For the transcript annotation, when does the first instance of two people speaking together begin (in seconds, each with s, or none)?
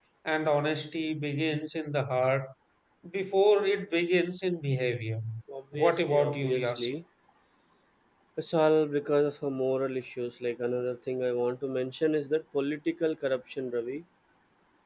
5.7 s